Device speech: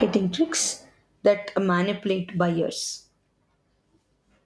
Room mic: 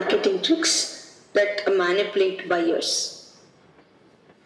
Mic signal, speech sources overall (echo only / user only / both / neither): echo only